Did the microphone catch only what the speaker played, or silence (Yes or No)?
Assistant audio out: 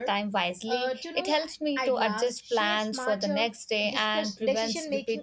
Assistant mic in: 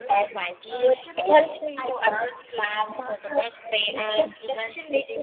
Yes